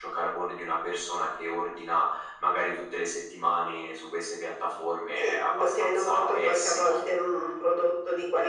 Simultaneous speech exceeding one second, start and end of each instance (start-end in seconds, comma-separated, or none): 5.2-7.0